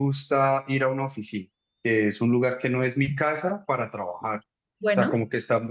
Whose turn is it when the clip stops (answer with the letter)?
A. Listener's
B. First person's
B